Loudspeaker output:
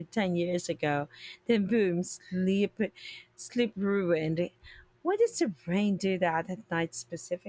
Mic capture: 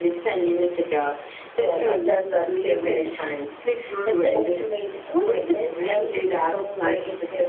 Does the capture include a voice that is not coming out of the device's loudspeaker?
Yes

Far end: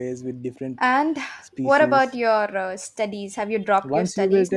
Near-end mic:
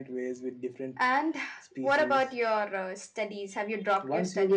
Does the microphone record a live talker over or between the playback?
No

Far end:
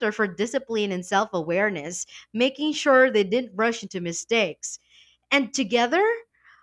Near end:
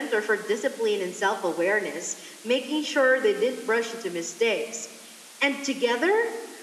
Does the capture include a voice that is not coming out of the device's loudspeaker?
No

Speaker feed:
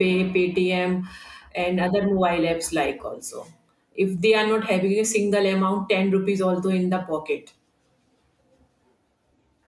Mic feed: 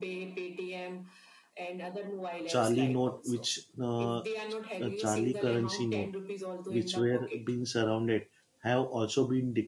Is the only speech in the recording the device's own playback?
No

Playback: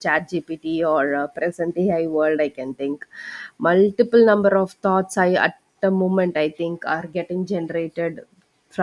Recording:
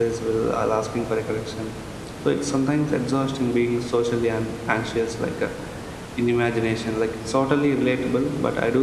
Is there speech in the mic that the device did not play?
Yes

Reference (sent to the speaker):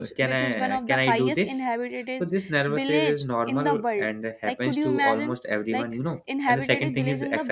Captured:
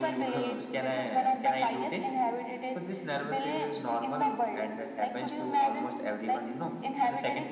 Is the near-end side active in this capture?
No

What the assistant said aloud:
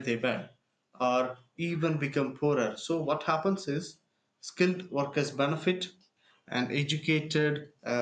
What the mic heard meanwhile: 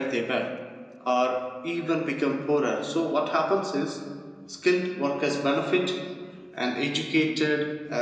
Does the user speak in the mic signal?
No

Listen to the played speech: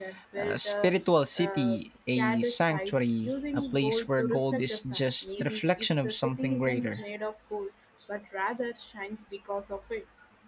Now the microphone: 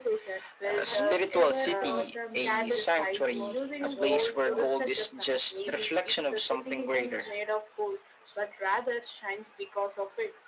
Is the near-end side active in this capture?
Yes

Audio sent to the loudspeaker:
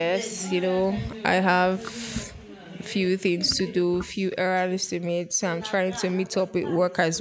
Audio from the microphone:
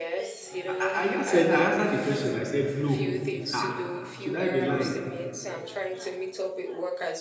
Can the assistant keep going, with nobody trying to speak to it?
No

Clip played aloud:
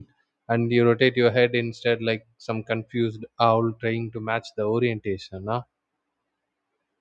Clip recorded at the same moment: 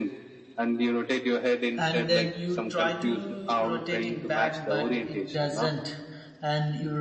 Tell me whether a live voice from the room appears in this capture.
Yes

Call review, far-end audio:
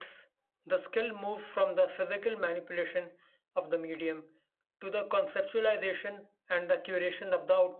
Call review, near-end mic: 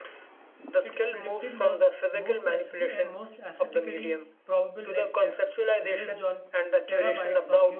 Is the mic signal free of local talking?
No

